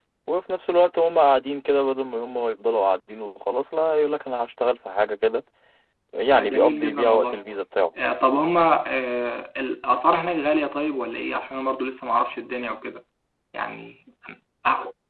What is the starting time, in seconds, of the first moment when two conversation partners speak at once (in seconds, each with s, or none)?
6.3 s